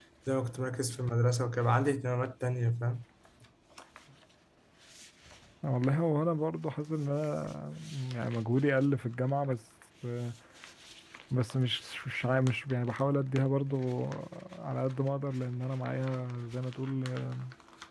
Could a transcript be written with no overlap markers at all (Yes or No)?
Yes